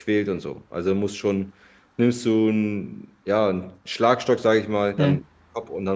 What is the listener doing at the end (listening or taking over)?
listening